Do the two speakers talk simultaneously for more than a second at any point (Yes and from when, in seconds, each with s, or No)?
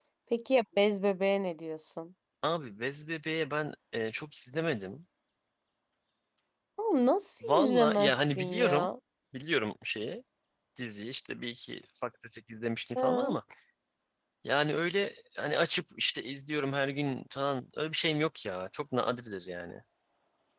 Yes, from 7.4 s